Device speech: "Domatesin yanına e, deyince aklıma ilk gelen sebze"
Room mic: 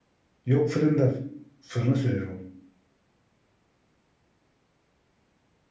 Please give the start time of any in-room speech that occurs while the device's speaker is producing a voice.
0.4 s

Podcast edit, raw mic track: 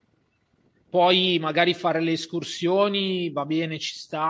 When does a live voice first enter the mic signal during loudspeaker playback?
0.9 s

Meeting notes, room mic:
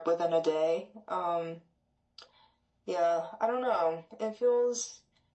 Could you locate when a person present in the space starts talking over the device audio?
none

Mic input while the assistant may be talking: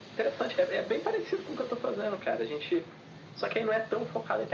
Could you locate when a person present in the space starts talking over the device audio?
none

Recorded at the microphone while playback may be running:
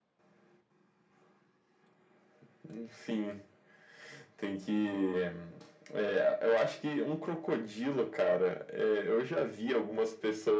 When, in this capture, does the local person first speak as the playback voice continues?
none

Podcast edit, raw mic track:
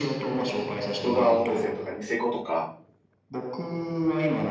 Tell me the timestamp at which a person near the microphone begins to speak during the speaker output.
1.0 s

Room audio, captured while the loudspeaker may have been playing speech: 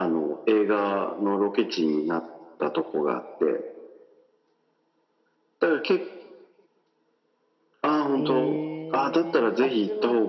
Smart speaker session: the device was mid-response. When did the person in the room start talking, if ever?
8.2 s

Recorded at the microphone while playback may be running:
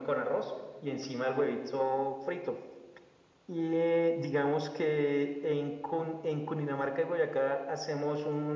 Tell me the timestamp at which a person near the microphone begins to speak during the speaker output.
none

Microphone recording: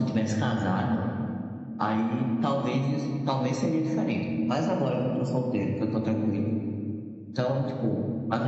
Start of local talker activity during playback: none

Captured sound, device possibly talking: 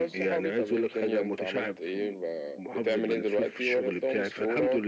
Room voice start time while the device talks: none

